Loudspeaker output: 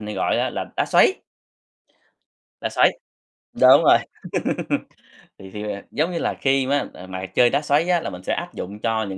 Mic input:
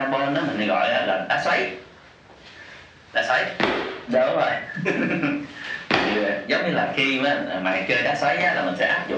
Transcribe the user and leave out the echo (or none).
none